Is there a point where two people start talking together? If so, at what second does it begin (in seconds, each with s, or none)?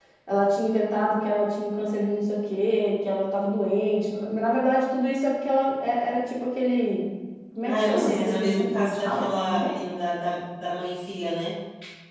7.6 s